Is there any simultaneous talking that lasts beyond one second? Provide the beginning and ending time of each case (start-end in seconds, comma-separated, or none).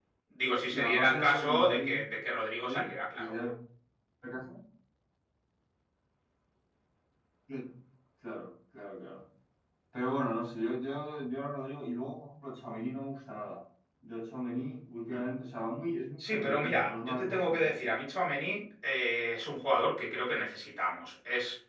0.7-2.0, 16.3-17.7